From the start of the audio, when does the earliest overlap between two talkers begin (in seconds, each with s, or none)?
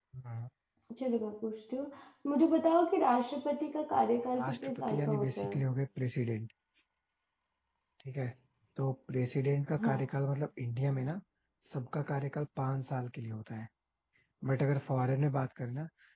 4.3 s